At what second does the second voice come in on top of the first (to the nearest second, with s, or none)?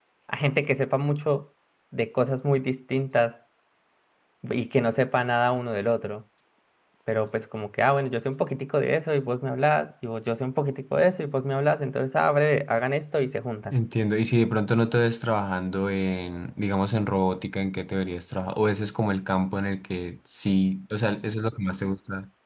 none